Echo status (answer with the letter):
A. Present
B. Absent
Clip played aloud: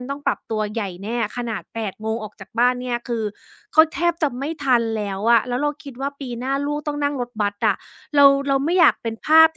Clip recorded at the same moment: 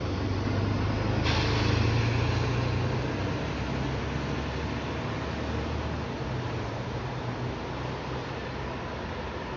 B